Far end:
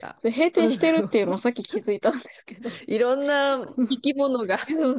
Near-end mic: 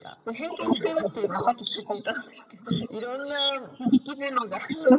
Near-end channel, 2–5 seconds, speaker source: echo only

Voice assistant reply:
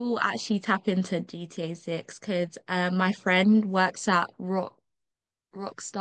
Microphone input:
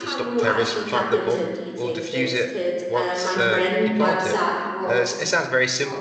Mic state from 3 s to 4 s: both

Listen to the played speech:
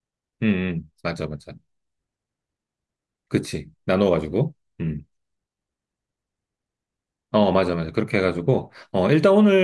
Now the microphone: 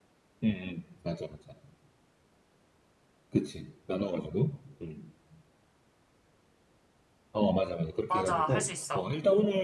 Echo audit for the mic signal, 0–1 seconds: echo only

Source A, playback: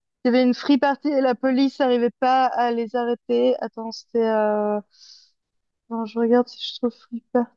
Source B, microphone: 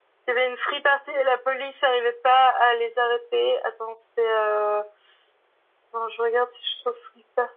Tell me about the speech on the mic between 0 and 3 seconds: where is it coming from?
echo only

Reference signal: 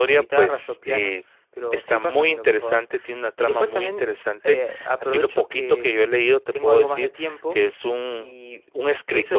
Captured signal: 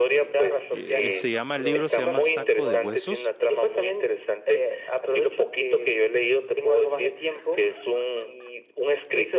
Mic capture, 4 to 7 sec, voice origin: echo only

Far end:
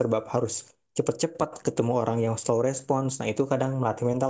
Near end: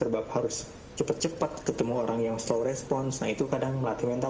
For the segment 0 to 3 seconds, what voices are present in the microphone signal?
echo only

